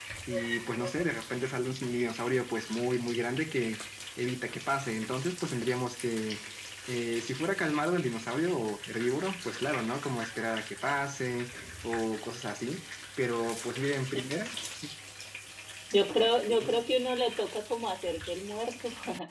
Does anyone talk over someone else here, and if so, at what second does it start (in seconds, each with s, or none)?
none